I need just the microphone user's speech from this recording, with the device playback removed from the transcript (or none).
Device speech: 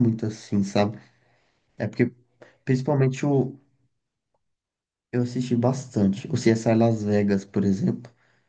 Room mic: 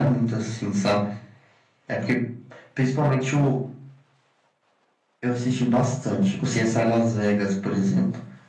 none